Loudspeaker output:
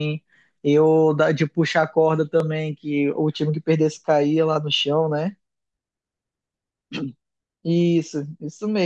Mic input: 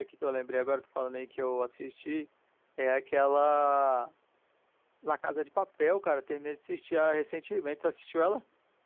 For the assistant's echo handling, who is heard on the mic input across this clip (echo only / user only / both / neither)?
user only